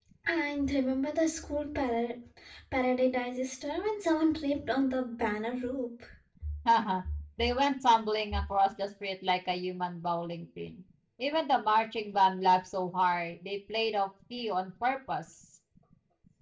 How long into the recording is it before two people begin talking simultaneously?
none

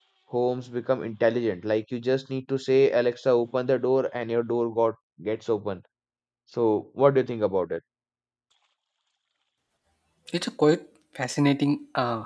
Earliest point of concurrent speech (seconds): none

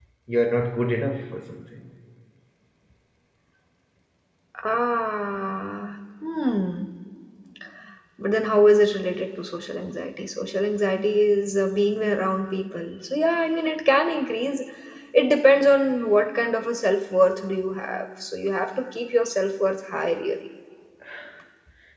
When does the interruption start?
none

